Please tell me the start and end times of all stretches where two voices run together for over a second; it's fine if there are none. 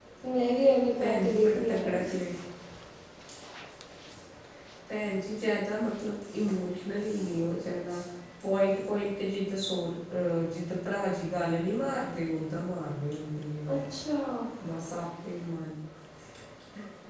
1.0-2.2

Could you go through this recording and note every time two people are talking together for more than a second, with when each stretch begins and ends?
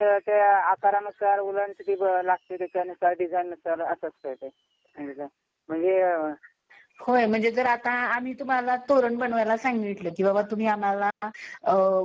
none

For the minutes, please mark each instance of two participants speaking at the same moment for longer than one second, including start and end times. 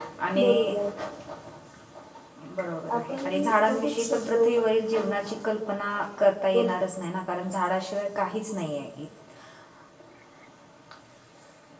3.0-4.6

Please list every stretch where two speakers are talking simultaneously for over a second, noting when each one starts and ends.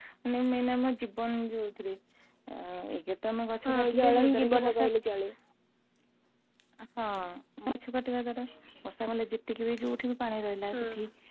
3.6-4.9

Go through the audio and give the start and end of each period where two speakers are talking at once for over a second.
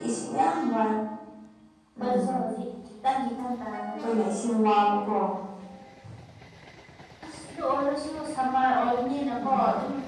none

